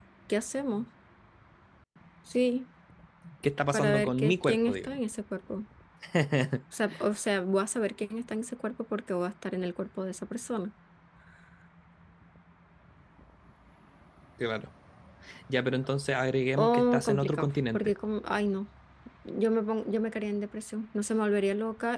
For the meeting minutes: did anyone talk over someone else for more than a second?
Yes, from 3.7 s

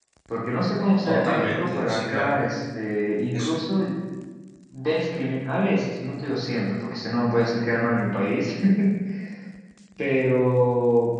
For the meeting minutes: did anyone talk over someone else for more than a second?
Yes, from 1.0 s

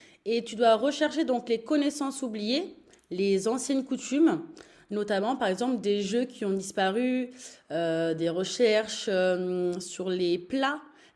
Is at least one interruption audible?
No

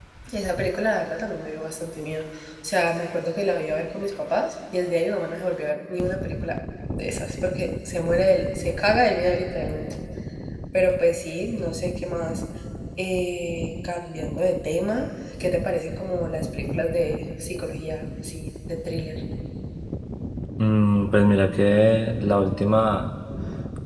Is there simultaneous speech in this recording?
No

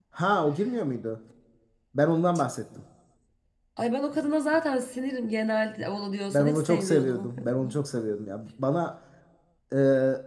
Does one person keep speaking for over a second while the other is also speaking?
Yes, from 6.3 s

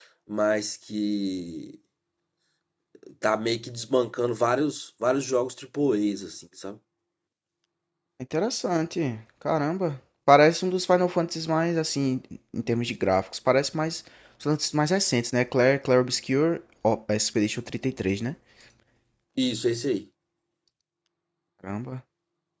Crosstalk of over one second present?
No

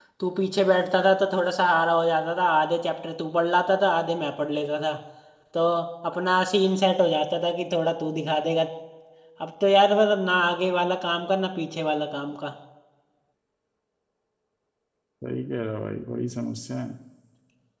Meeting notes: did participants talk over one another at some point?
No

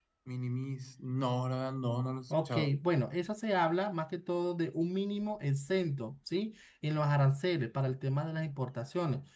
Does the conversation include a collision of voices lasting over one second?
No

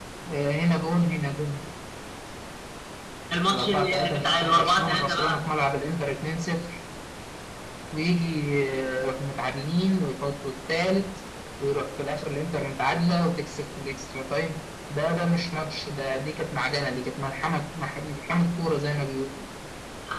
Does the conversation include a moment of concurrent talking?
Yes, from 3.5 s

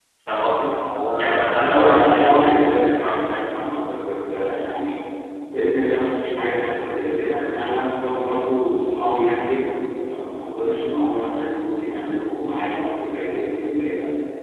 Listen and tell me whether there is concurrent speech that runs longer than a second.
Yes, from 1.2 s

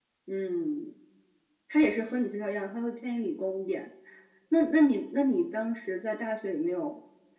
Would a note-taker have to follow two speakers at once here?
No

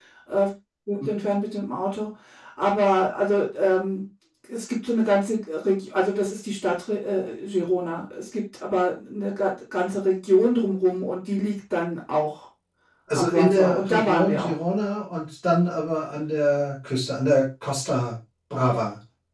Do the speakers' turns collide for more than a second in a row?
Yes, from 13.1 s

